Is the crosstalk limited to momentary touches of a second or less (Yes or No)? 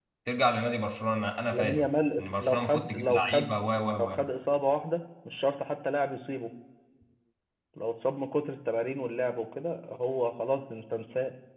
No